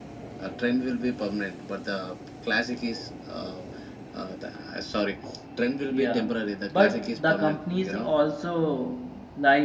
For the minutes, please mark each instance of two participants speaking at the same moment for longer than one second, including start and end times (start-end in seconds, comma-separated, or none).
6.7-8.1